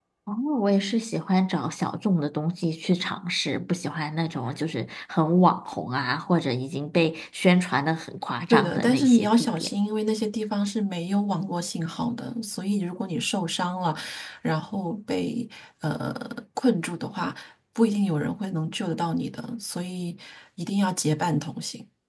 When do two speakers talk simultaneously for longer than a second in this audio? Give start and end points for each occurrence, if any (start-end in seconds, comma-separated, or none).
8.5-9.7